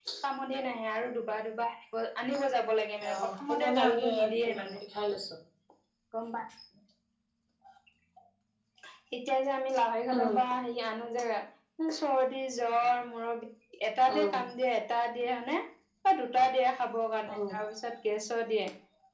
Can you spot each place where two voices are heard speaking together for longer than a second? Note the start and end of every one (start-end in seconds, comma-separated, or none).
3.1-4.8